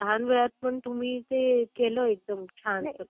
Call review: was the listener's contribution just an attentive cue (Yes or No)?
No